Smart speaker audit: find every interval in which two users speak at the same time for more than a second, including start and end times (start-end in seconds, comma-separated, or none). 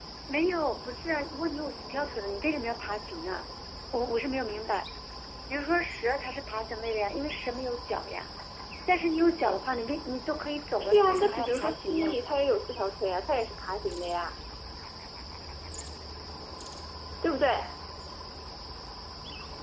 10.8-12.2